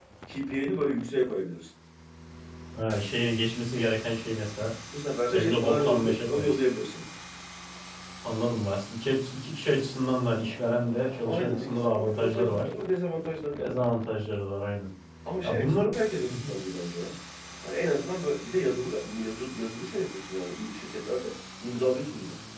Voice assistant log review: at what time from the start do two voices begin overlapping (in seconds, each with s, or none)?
5.3 s